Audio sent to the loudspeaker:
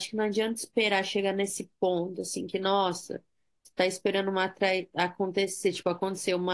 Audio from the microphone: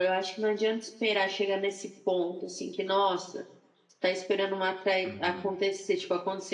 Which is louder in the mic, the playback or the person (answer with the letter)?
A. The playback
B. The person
A